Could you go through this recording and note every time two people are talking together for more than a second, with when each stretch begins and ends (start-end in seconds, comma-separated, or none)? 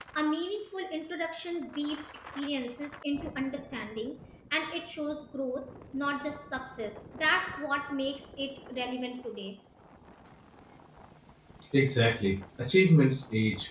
none